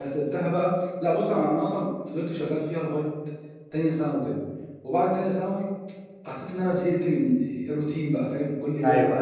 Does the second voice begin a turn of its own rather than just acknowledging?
No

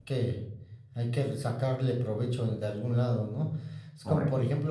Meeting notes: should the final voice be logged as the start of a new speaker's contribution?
No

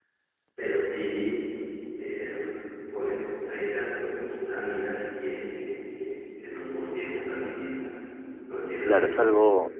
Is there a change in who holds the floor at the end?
Yes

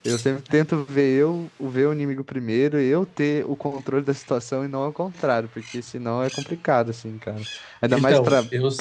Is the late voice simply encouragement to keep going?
No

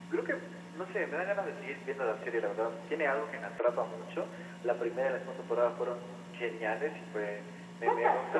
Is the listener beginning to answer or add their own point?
No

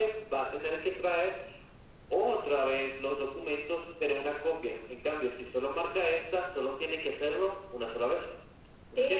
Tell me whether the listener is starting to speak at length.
Yes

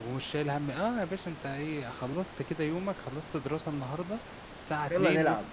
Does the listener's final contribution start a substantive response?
No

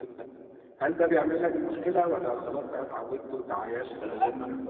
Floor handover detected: No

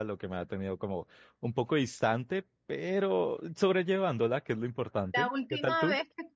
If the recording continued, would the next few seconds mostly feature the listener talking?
Yes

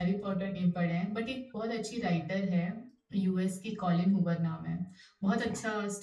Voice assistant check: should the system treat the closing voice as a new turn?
No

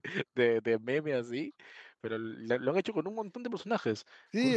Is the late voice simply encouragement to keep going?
No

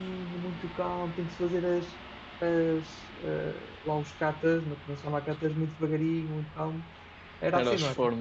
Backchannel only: No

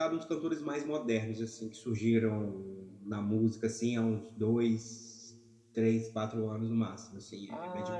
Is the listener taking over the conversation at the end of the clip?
Yes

